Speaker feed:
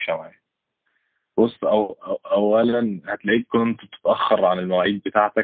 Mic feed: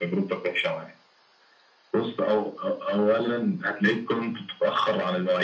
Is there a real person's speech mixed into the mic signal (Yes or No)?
No